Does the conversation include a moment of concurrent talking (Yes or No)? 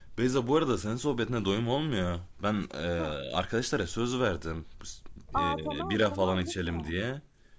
Yes